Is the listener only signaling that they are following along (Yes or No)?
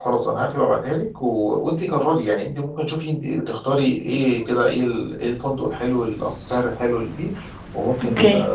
Yes